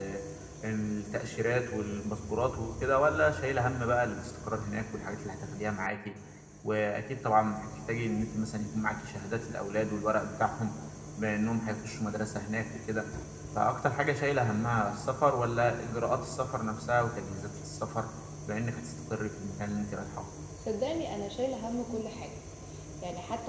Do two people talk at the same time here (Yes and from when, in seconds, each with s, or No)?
No